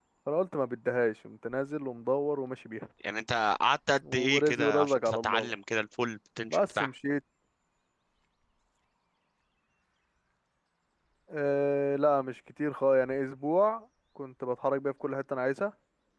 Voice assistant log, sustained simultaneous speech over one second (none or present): present